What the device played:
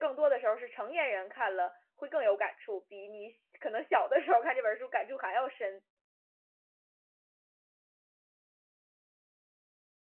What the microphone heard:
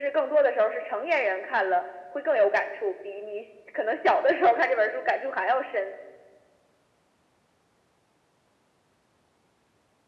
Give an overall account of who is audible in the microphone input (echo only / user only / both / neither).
echo only